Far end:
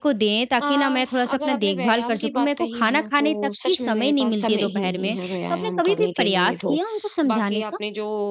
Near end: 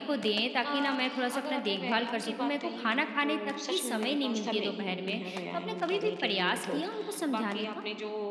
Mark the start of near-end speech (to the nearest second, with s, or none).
none